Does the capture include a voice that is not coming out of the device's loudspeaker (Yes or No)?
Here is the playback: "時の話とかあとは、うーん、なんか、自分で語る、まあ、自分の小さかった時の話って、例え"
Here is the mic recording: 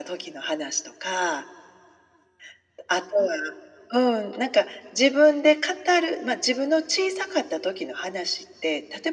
No